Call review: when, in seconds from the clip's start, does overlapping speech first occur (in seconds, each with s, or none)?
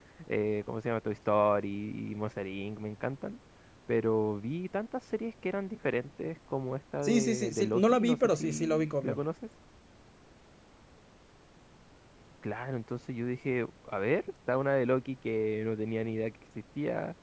7.0 s